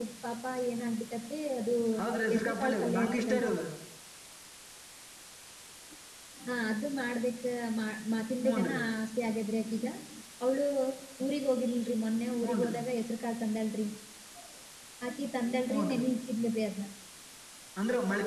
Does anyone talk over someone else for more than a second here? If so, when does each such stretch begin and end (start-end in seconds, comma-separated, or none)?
2.3-3.5